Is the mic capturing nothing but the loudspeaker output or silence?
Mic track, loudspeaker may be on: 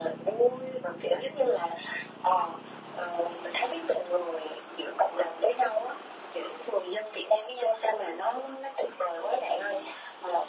Yes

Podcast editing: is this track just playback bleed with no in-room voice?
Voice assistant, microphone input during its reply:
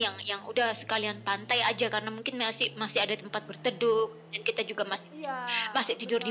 No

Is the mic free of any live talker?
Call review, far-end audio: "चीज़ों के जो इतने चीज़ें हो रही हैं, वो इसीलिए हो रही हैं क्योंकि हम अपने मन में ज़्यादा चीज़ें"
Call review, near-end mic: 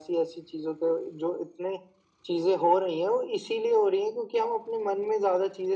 Yes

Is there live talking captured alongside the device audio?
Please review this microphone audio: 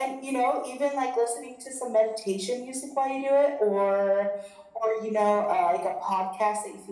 No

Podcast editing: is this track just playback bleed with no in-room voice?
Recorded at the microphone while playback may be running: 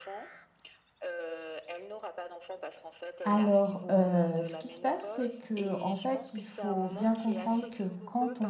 No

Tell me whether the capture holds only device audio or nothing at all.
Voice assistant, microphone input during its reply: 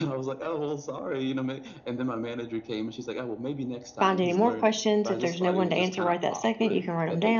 No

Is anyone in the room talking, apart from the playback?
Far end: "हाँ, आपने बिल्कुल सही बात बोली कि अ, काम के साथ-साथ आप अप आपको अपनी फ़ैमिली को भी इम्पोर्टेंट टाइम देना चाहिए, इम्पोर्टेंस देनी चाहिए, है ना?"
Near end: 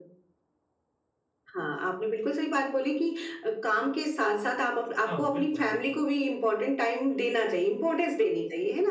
Yes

